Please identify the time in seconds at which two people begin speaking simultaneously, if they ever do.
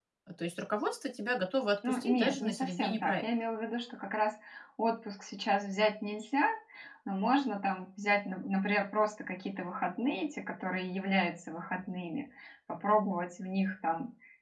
2 s

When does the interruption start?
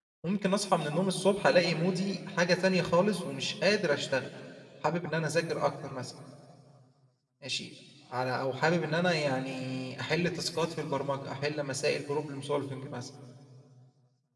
none

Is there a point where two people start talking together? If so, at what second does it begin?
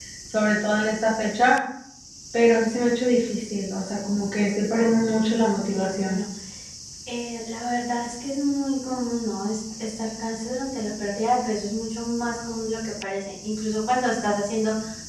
5 s

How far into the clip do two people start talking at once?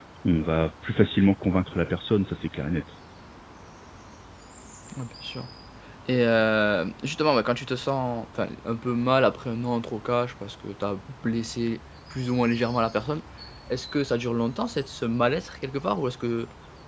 none

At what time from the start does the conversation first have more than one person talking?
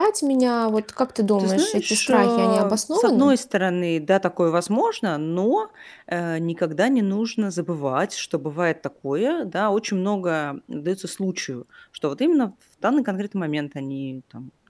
1 s

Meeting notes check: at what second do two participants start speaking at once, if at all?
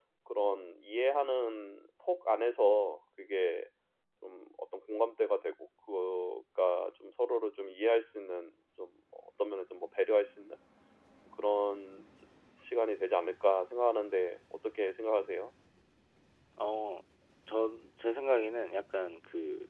none

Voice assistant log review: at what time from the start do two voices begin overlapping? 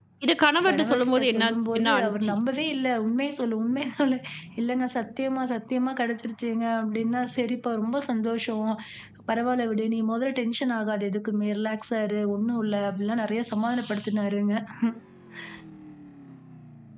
1 s

